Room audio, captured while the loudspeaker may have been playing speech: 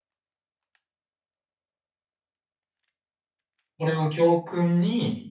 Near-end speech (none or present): present